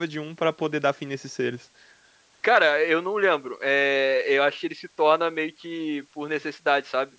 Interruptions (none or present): none